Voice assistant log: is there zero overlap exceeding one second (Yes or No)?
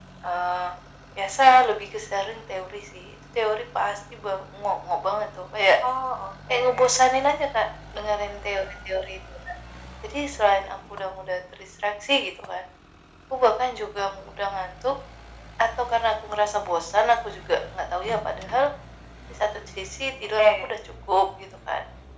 Yes